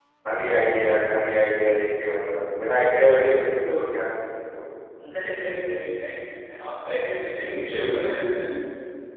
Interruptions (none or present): none